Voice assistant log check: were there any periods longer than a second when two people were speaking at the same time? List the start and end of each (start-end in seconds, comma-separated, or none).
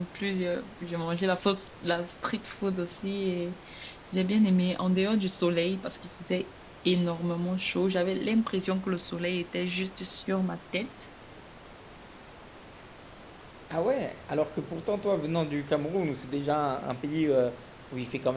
none